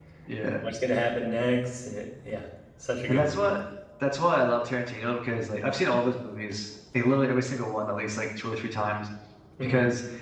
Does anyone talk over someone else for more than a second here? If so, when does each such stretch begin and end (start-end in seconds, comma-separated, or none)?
none